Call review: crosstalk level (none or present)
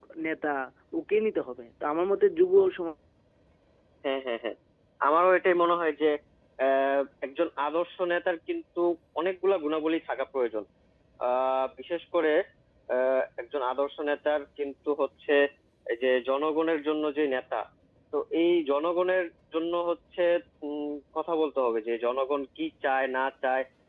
none